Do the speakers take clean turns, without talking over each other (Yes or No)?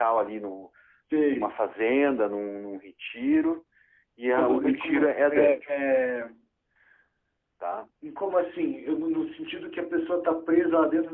No